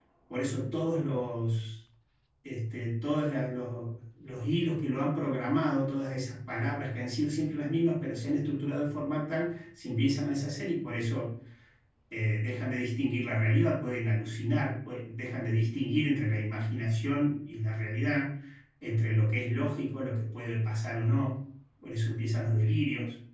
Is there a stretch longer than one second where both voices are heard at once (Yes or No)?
No